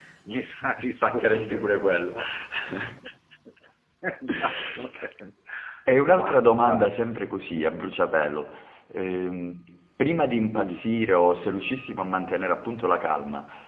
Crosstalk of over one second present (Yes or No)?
Yes